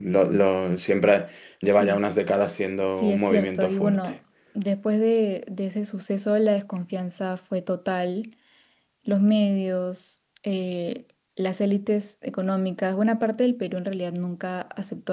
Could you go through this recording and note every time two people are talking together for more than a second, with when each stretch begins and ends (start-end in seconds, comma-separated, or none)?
2.9-4.1